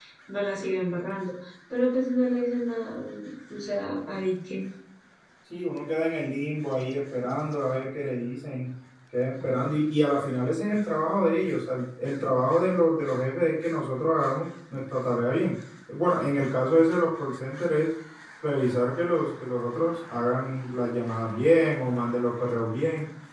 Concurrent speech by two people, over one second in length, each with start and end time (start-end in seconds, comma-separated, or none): none